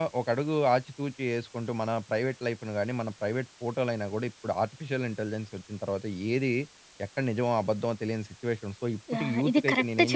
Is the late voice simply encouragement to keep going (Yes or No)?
No